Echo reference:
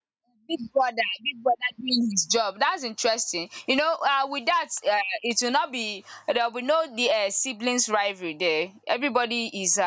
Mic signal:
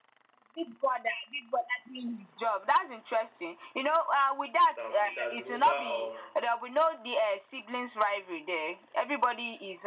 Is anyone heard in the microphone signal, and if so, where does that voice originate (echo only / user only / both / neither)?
both